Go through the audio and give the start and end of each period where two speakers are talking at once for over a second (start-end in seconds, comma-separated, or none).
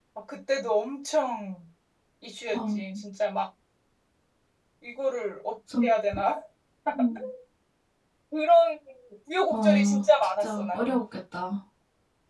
9.5-11.0